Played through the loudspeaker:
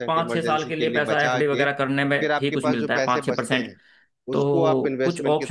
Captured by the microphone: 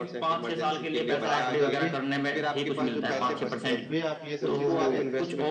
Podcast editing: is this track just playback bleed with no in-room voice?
No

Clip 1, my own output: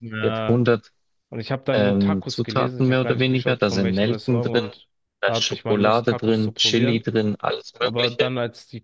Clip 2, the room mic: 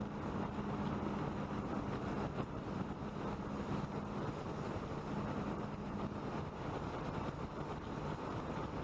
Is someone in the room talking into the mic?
No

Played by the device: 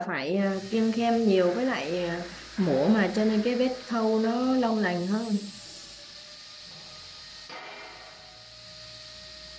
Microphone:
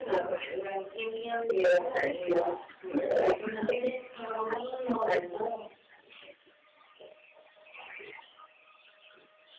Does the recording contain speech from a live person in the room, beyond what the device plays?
Yes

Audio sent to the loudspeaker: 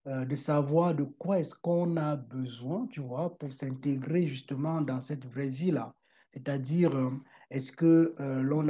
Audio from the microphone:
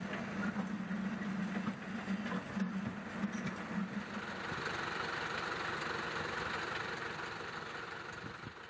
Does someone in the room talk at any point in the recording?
No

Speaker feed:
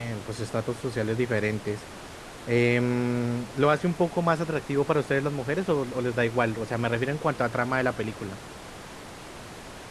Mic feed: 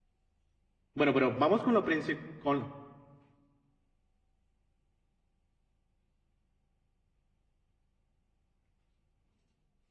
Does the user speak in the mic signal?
Yes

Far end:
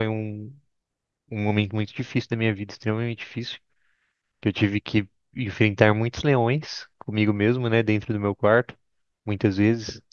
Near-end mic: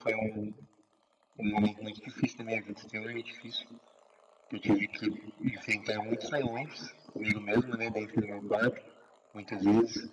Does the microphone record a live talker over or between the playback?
No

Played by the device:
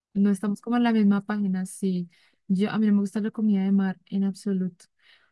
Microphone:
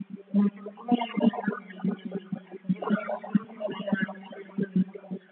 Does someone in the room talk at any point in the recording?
No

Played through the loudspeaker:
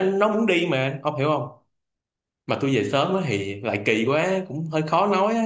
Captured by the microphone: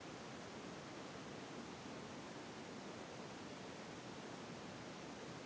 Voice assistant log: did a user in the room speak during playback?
No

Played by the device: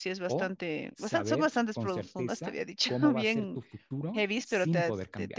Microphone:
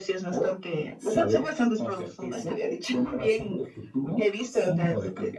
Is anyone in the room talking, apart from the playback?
No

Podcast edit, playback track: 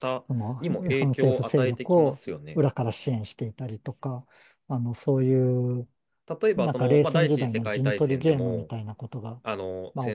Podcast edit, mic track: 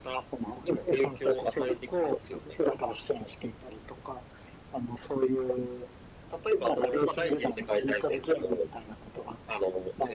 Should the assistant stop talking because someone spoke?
No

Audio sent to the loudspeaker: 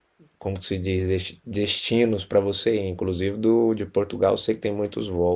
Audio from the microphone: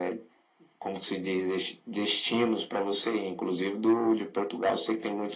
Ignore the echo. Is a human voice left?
No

